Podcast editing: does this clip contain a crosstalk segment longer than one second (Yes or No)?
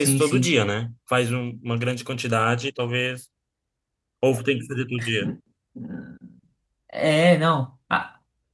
No